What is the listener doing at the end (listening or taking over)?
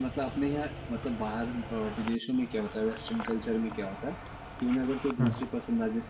listening